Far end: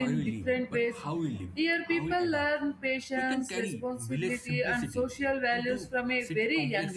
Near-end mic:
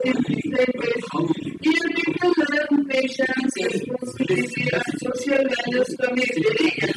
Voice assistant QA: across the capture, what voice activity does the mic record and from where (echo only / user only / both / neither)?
echo only